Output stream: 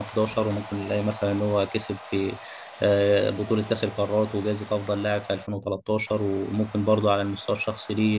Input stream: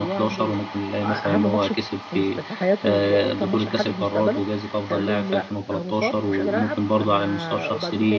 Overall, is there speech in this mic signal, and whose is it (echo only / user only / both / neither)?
both